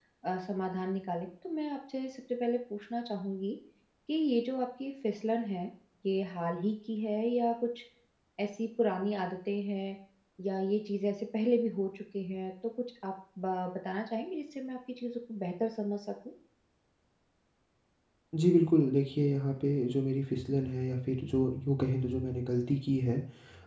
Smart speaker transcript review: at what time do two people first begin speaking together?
none

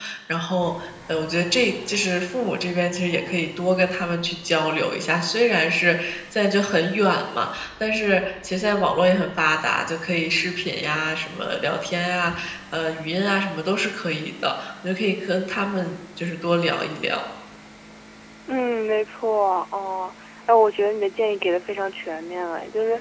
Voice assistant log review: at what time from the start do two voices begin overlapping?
none

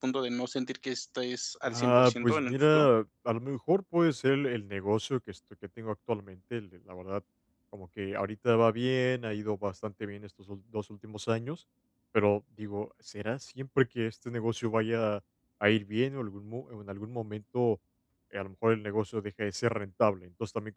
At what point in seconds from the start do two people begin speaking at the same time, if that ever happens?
2 s

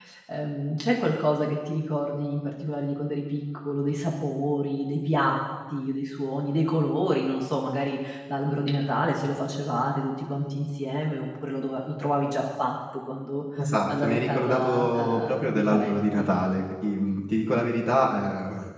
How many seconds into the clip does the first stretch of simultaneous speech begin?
14 s

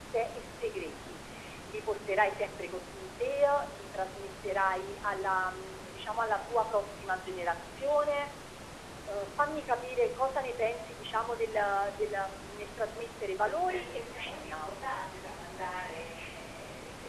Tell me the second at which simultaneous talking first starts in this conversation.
13 s

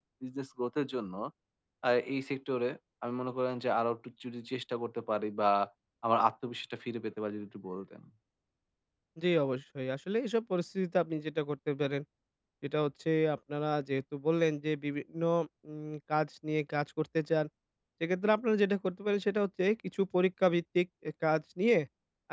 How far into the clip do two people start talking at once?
none

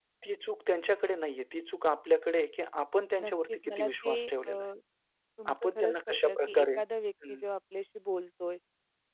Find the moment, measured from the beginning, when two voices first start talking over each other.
3 s

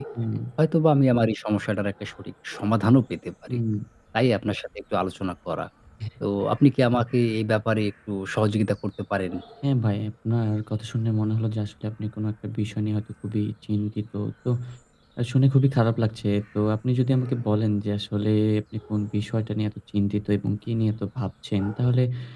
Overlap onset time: none

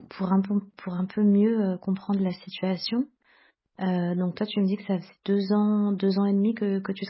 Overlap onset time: none

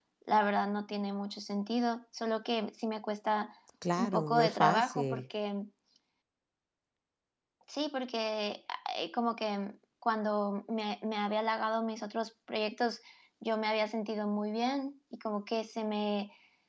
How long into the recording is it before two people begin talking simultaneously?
4 s

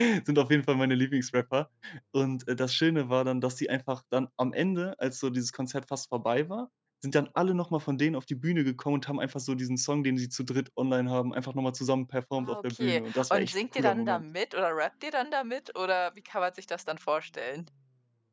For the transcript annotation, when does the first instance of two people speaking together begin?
12 s

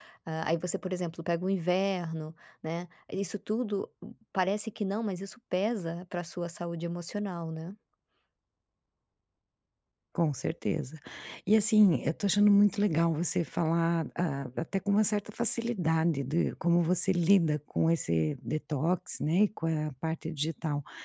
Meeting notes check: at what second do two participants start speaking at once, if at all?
none

